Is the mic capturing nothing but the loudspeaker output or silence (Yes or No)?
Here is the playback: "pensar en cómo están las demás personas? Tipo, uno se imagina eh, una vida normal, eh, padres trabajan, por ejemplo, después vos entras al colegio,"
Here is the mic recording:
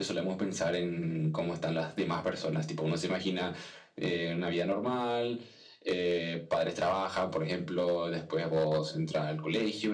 Yes